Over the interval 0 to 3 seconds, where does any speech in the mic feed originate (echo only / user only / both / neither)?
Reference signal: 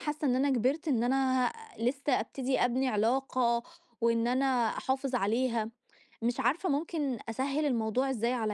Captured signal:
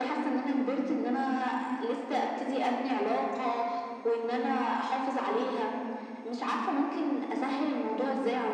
echo only